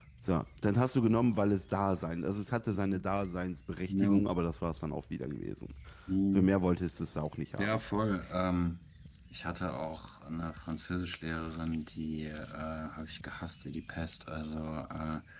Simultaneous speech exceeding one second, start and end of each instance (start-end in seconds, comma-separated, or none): none